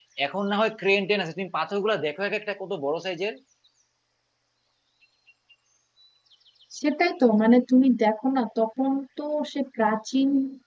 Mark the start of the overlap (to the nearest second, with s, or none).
none